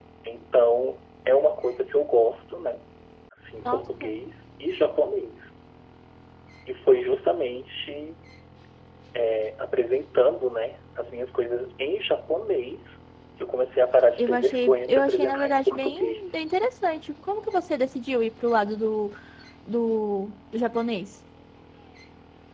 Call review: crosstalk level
present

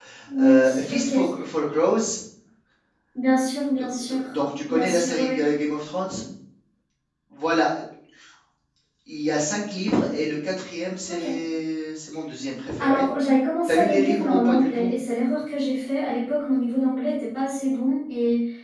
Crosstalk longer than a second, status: present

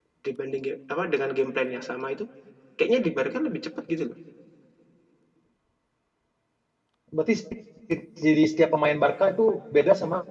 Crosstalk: none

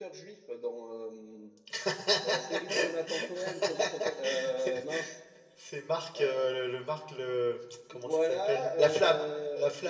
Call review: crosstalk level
present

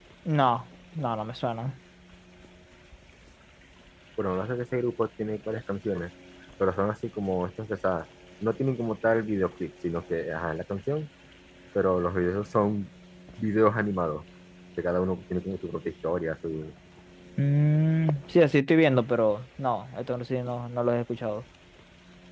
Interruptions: none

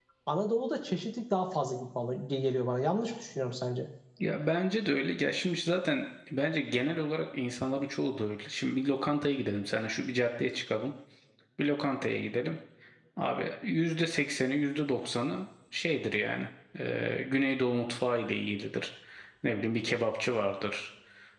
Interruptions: none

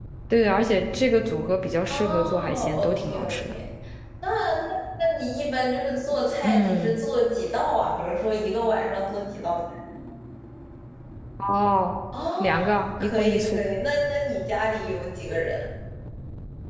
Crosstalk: present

